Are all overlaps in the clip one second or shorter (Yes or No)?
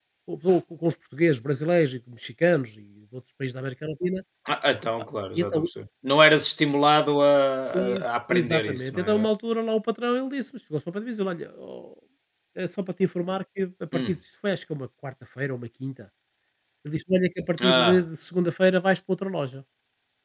No